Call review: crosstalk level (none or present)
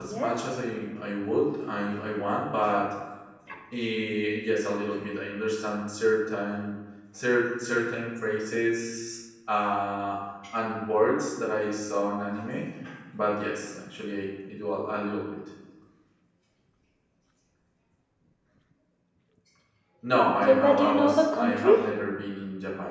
present